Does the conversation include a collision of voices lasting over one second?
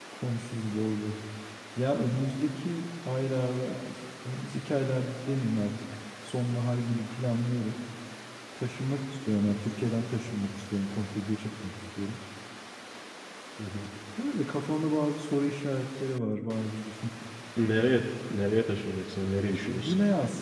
No

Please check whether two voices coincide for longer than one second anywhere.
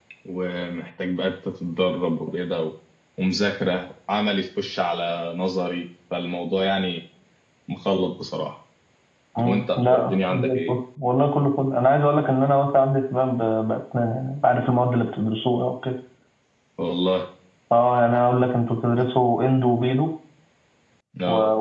Yes, from 9.4 s

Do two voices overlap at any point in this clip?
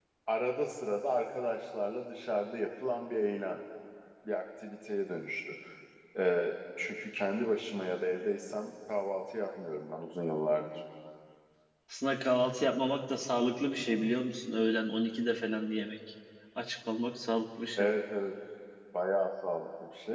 No

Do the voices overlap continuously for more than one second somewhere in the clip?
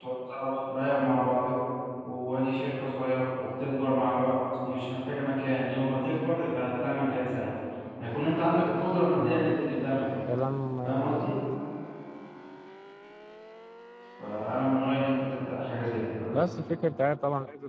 No

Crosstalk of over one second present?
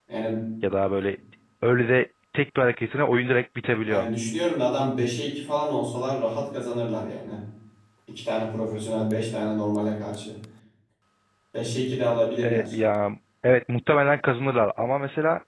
No

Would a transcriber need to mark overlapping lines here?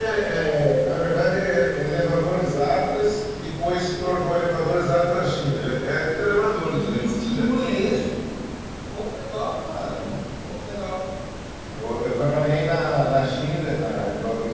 Yes, from 6.6 s

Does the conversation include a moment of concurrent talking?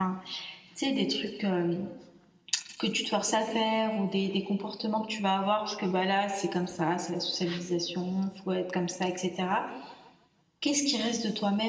No

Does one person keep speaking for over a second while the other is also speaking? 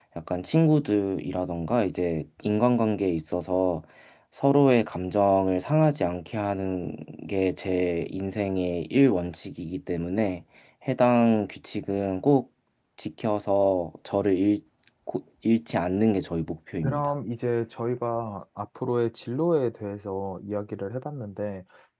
No

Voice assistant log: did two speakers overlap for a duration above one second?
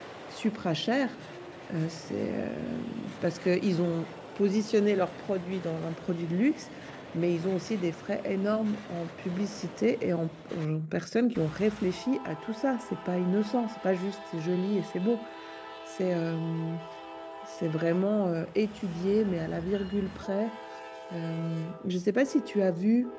No

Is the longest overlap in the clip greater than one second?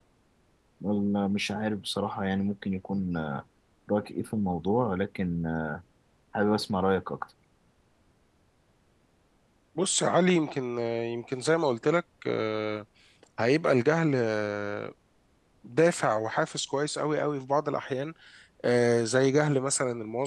No

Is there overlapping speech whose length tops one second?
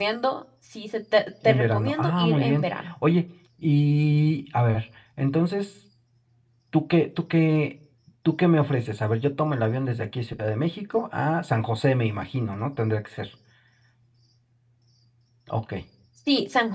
Yes, from 1.4 s

